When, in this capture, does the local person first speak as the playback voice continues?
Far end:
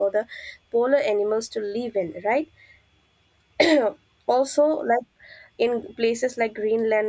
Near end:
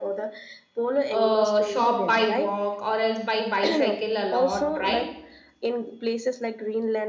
1 s

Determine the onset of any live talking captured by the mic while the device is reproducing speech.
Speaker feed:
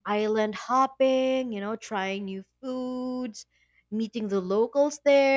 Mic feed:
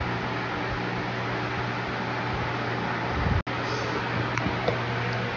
none

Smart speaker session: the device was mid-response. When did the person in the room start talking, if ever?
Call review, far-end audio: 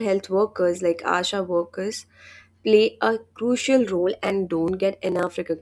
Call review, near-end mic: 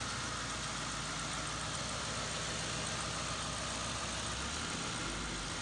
none

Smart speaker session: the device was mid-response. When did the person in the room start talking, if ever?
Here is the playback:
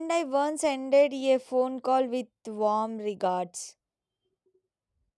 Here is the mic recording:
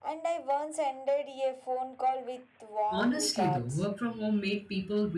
3 s

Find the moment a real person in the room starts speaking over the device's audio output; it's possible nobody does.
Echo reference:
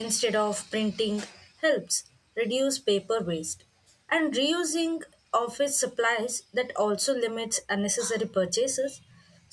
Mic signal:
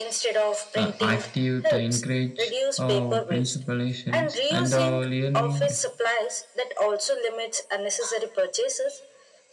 1 s

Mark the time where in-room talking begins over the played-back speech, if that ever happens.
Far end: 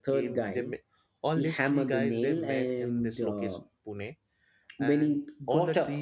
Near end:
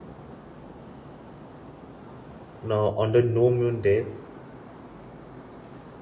3 s

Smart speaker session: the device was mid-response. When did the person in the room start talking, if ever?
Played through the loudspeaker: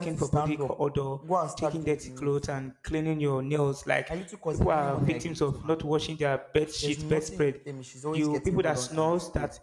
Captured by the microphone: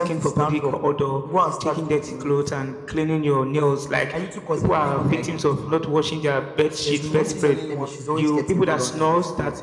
7 s

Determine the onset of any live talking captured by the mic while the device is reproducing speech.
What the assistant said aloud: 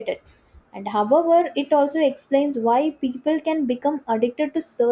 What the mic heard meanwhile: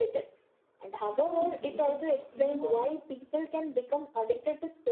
1 s

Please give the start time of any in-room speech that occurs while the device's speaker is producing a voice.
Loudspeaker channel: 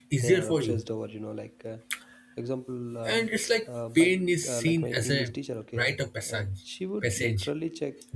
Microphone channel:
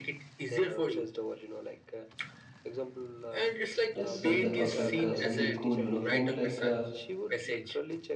4 s

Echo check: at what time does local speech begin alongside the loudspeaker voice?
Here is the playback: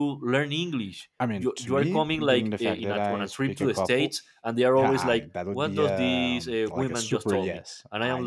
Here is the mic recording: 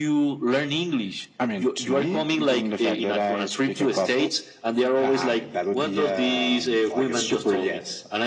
none

